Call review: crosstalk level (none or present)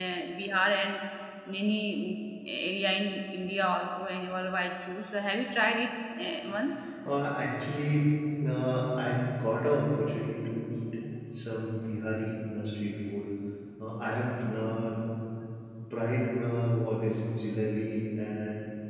none